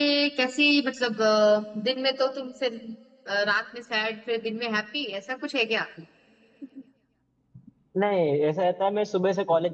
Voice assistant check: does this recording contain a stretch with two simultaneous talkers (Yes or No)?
No